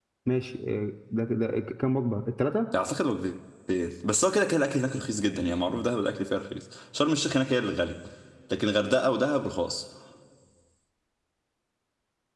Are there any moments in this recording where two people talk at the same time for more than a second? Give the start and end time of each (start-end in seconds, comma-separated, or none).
none